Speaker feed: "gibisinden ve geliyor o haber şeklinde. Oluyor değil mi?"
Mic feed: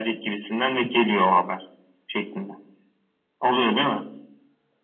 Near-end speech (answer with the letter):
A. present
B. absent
B